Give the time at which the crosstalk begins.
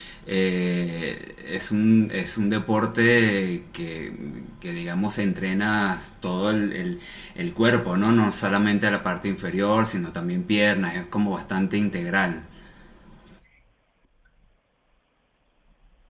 none

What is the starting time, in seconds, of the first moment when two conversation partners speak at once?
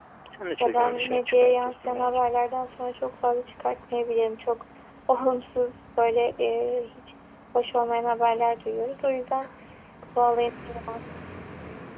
0.6 s

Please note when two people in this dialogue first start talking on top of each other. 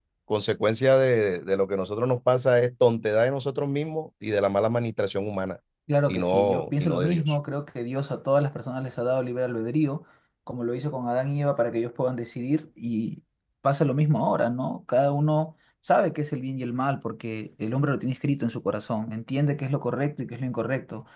6.1 s

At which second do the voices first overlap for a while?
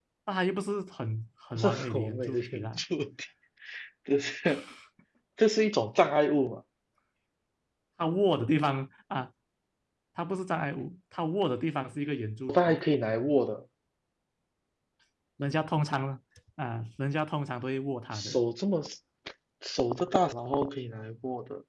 1.6 s

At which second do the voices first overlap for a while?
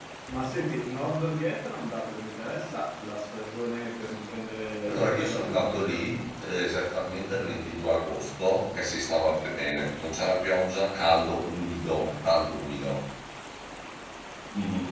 4.8 s

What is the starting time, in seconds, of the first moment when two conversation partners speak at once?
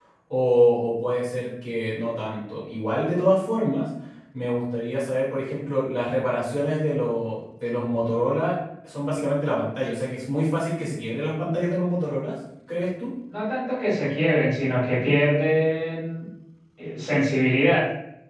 none

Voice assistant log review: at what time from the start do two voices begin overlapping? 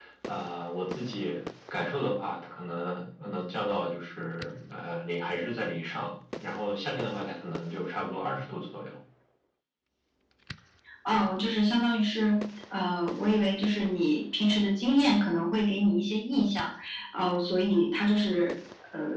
none

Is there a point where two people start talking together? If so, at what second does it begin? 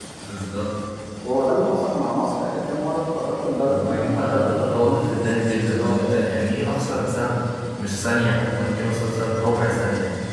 3.6 s

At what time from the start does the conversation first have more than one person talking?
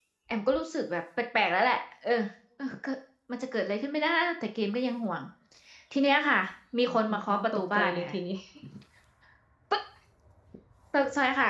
6.9 s

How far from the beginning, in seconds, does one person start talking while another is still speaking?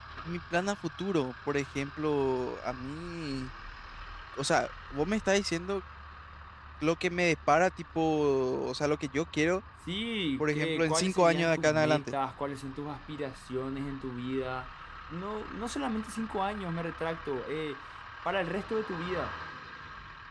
10.4 s

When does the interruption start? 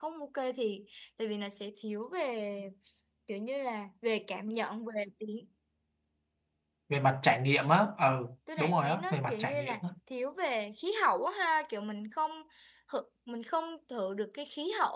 8.5 s

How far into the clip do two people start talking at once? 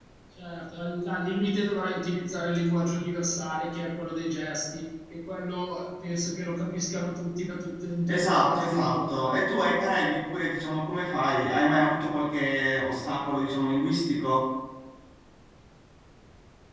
8.0 s

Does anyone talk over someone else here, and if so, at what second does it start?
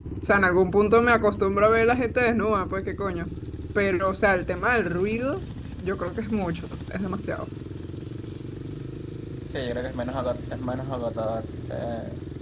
none

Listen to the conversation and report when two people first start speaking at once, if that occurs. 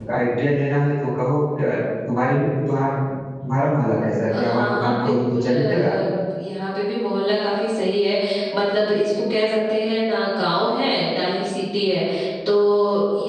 4.3 s

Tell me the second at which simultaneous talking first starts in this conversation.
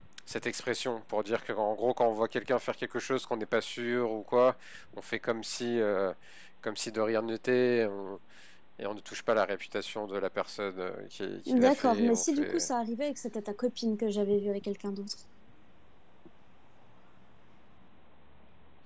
11.5 s

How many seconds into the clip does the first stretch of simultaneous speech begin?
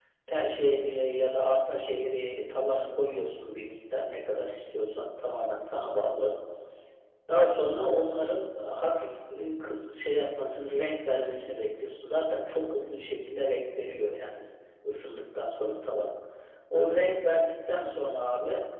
none

